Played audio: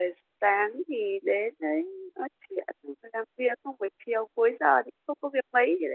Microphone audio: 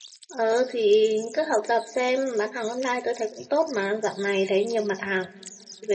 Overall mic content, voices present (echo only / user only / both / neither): user only